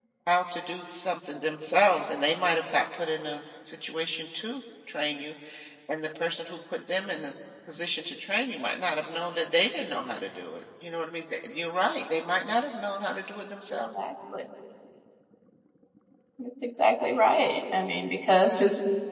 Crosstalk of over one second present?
No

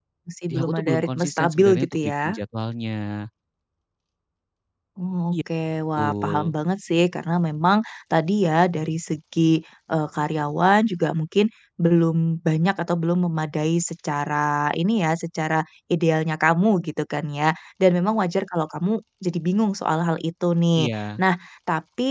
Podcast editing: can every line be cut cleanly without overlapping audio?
No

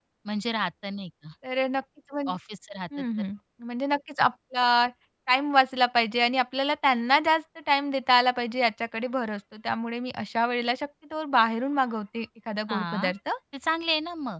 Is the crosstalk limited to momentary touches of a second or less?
Yes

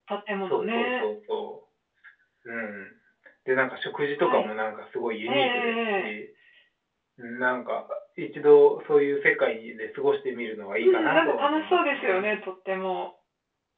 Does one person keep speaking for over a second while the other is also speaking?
Yes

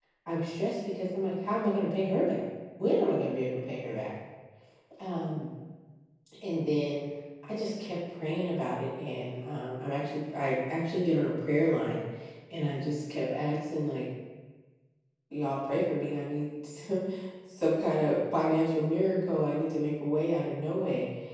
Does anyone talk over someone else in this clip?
No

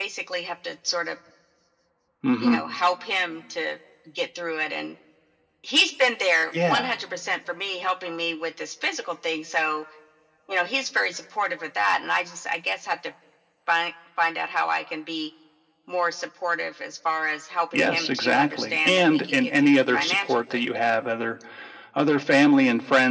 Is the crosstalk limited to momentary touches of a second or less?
No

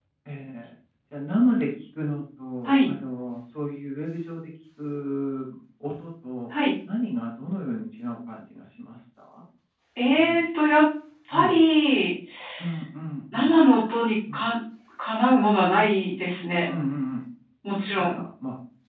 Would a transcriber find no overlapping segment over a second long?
Yes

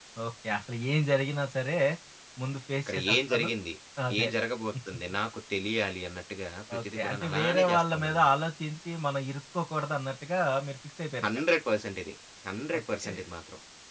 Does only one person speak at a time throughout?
No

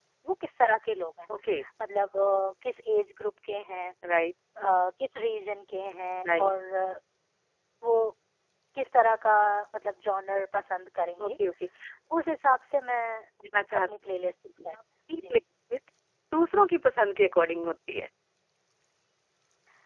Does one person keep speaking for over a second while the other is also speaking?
No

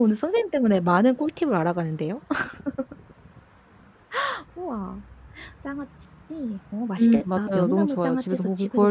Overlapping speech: Yes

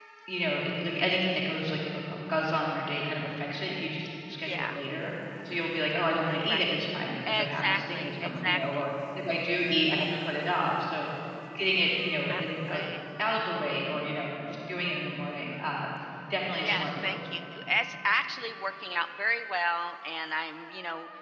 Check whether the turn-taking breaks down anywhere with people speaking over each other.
Yes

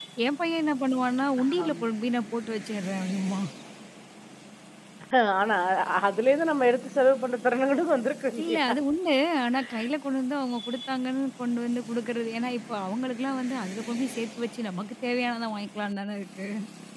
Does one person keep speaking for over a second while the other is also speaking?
No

